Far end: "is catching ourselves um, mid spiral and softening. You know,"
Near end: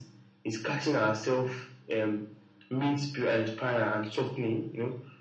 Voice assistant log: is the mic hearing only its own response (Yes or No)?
Yes